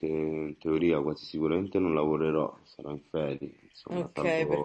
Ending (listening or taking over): taking over